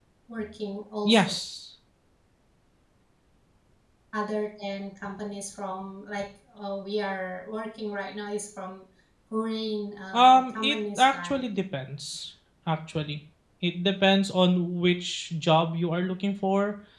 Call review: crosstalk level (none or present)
present